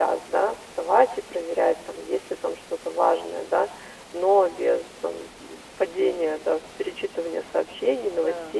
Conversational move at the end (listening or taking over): listening